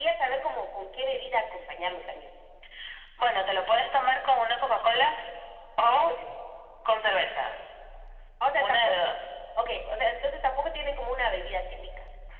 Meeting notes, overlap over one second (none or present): none